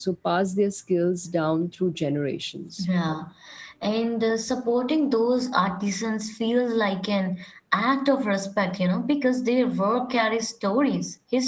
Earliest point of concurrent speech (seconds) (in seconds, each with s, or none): none